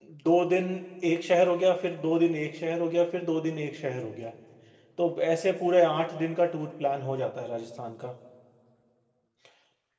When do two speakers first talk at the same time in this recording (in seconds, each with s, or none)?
none